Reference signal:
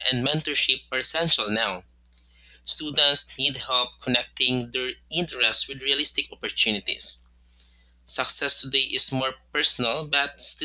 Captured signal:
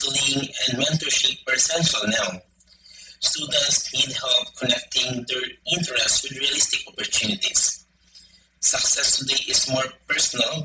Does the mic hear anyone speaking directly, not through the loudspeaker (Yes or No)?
No